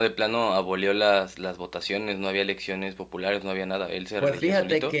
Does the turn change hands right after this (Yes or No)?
Yes